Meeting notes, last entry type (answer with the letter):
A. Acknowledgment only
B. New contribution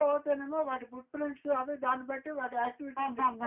B